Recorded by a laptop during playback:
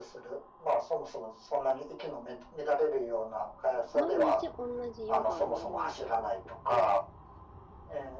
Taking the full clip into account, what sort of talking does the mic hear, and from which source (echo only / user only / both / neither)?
both